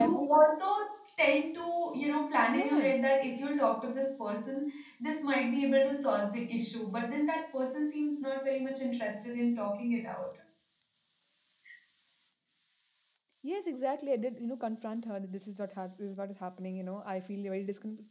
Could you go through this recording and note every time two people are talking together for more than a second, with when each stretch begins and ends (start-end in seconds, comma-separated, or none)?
none